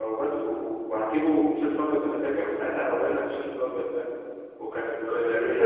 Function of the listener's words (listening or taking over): taking over